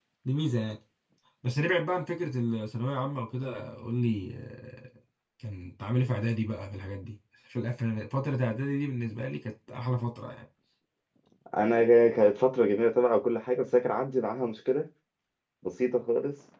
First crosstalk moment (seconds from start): none

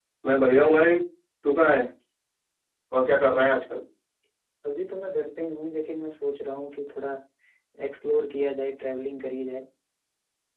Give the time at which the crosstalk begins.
none

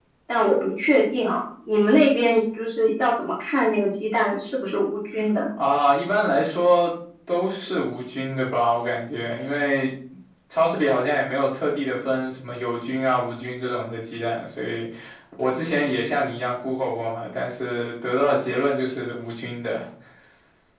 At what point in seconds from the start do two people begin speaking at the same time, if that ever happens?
none

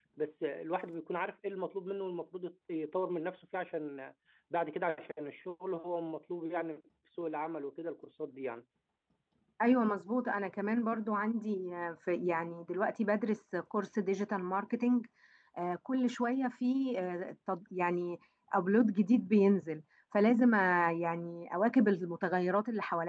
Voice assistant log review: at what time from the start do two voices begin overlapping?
none

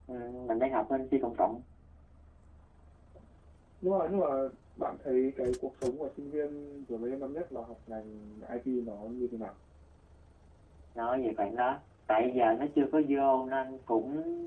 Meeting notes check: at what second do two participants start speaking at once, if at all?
none

